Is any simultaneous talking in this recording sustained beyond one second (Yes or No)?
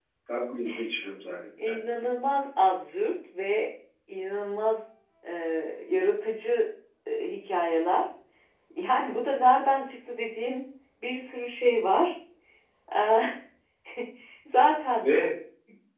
No